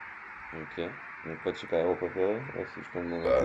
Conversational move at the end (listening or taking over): taking over